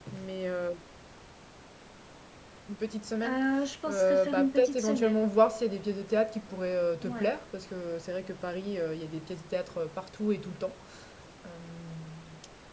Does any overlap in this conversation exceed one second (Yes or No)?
Yes